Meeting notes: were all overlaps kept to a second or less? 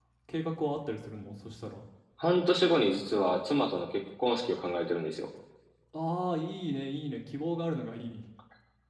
Yes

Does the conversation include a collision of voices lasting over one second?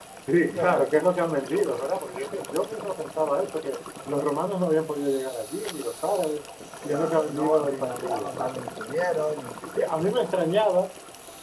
Yes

